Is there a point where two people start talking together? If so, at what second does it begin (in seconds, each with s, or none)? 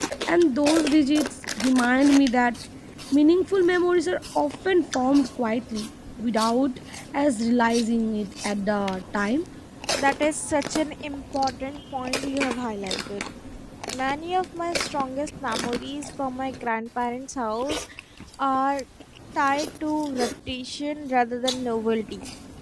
none